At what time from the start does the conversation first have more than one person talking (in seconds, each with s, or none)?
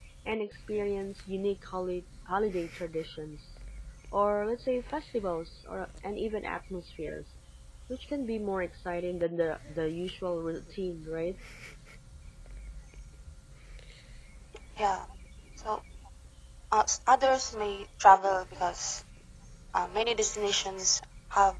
none